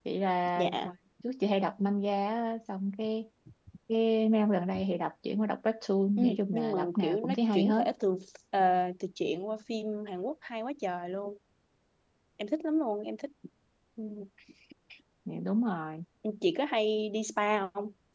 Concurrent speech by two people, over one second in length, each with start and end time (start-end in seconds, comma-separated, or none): 6.2-7.8